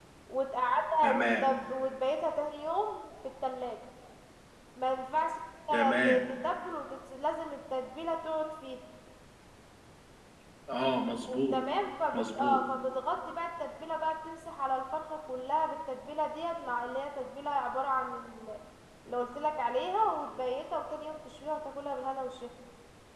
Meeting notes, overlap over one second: none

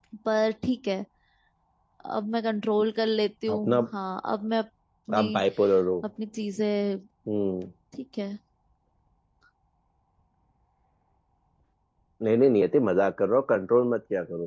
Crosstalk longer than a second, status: none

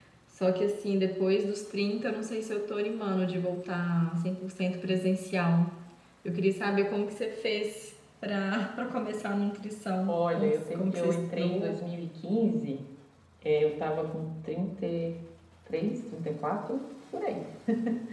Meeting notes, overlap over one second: present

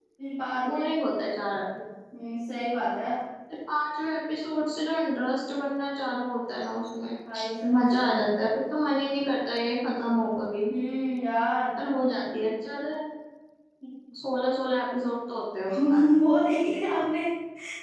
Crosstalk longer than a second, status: none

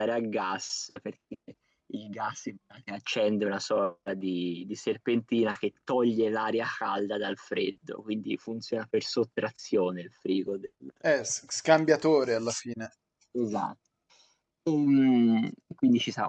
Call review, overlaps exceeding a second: none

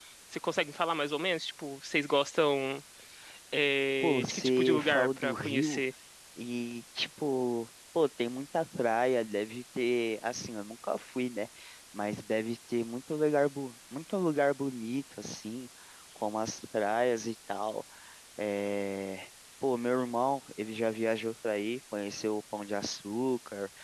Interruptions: present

